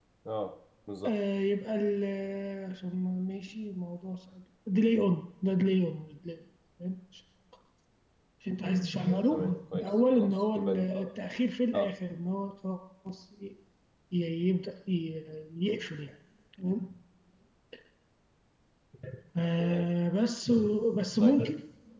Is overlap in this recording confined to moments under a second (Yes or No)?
No